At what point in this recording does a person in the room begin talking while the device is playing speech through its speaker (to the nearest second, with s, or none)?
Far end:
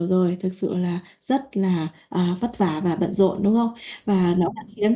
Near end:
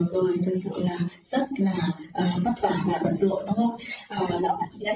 none